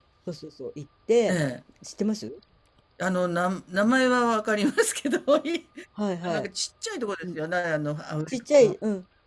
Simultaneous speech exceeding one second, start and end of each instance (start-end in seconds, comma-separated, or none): none